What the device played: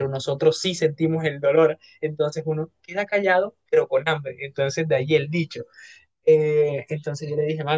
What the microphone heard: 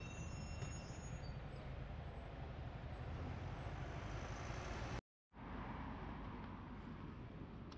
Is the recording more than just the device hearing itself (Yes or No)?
No